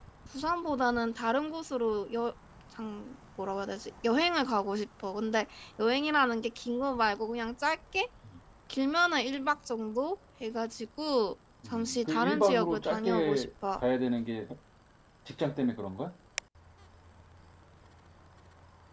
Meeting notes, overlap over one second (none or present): present